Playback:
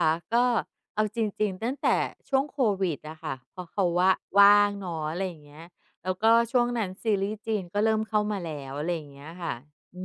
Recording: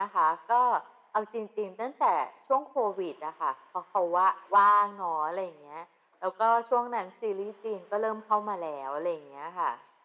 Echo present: Yes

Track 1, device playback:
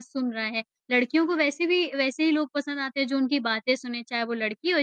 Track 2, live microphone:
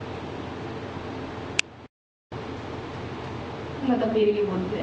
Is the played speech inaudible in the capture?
Yes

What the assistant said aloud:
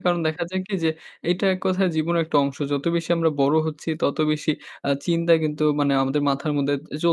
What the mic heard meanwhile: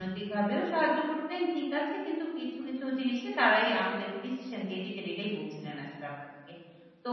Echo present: No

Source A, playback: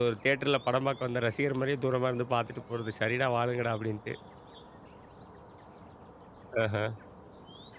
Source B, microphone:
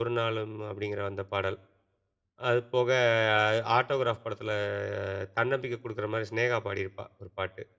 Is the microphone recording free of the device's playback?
Yes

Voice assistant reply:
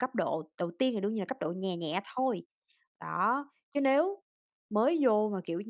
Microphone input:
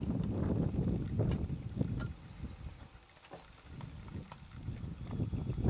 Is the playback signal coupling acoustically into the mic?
No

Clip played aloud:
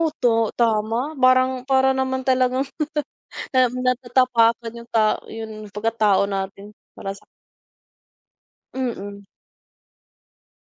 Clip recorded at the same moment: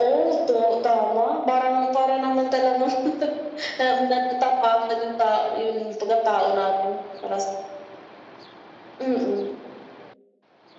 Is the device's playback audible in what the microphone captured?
Yes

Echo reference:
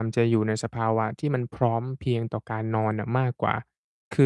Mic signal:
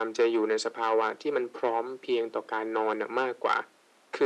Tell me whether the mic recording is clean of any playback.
No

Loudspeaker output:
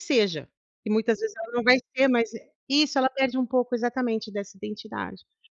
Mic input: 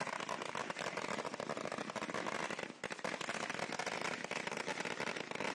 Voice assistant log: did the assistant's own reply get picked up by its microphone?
No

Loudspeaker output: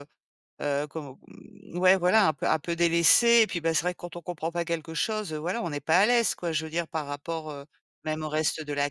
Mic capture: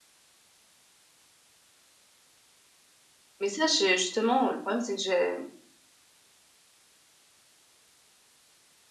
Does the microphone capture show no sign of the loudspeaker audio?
Yes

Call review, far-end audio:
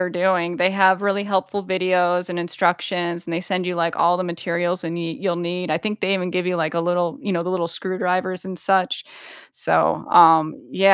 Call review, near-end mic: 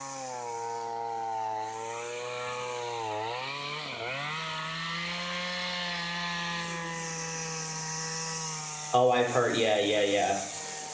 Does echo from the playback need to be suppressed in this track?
No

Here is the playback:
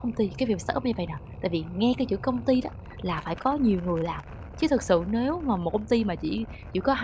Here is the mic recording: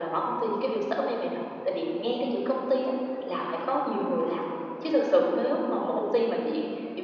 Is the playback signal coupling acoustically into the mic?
Yes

